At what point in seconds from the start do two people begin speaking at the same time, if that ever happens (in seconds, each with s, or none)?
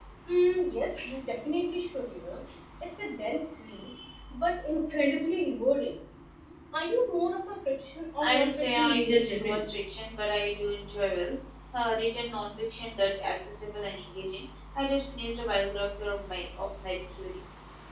8.2 s